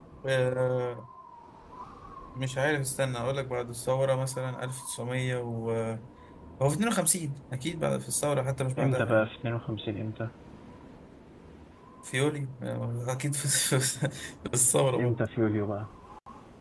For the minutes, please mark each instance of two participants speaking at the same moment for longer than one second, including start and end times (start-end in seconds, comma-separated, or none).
none